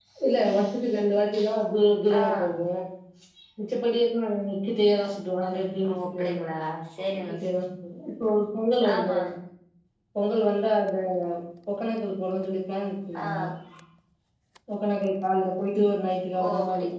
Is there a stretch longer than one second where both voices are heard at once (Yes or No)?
No